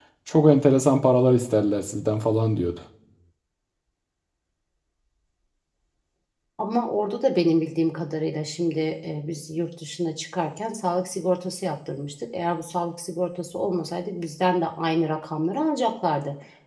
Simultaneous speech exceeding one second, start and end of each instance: none

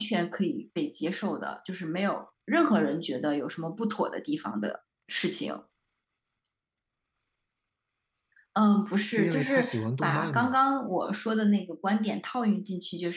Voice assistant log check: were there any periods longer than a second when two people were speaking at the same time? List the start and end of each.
9.1-10.6

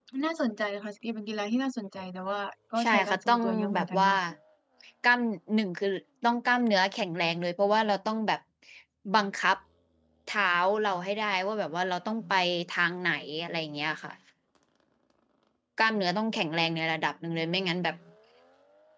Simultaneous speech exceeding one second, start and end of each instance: 2.8-4.1

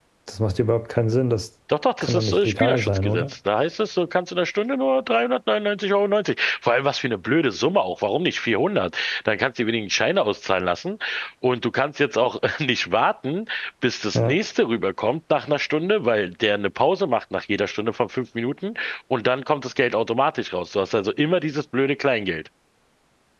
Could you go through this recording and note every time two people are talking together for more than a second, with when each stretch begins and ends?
2.0-3.2

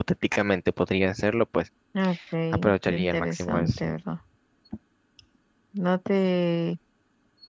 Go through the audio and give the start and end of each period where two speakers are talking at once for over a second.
2.5-3.8

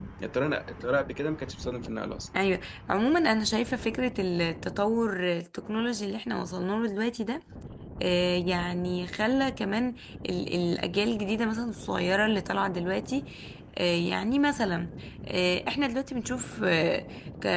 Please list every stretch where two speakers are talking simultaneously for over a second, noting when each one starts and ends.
none

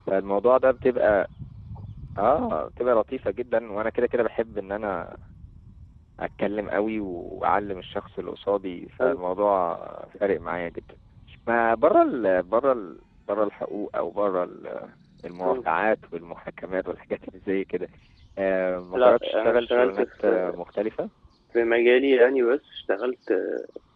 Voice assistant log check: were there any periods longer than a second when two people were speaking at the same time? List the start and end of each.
18.9-20.6

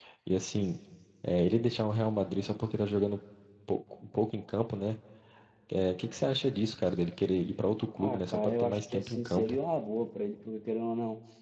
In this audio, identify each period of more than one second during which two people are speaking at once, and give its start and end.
8.0-9.6

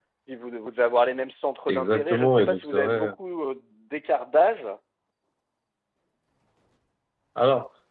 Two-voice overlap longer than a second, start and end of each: 1.7-3.1

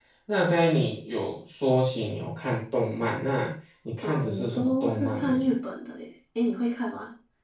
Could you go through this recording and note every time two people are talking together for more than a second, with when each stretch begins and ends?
4.0-5.4

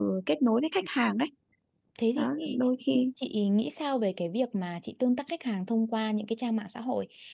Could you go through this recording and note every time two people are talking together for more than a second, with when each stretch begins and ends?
none

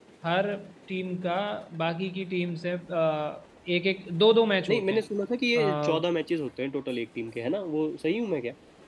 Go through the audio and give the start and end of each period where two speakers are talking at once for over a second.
none

